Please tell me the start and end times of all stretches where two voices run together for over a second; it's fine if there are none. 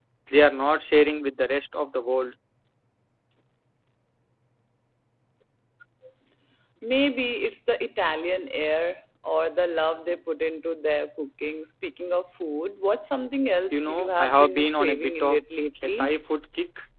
13.7-15.4

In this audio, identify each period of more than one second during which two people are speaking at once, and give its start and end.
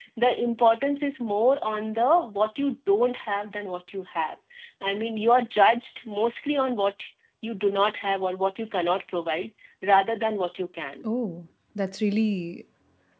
none

